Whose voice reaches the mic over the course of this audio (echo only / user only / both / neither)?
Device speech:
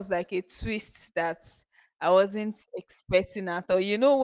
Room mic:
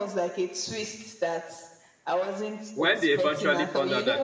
both